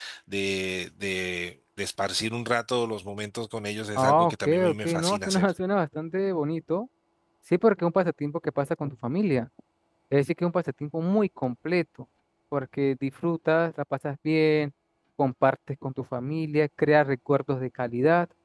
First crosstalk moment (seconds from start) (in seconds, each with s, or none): 4.0 s